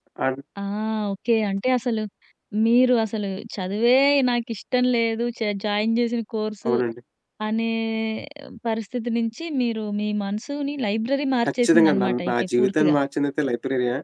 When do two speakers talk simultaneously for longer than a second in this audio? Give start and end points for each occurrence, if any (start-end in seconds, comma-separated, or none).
11.6-12.9